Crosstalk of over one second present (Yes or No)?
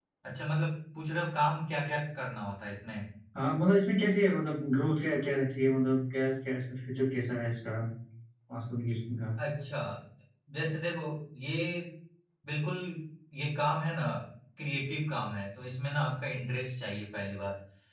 No